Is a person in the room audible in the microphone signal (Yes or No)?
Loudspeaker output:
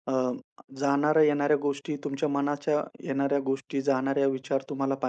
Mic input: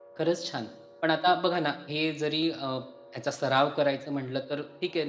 Yes